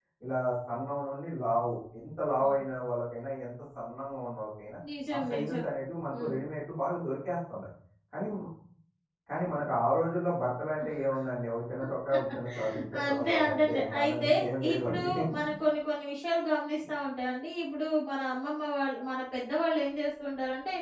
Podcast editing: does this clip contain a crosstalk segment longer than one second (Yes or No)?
Yes